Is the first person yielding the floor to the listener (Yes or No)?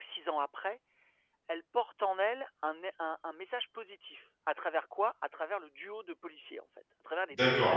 Yes